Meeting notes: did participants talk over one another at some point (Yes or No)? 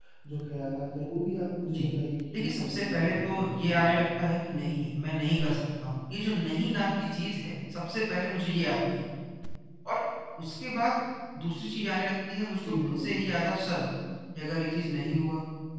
Yes